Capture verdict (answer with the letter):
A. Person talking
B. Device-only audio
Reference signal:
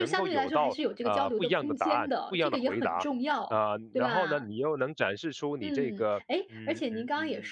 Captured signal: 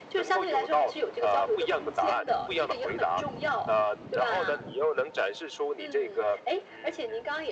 B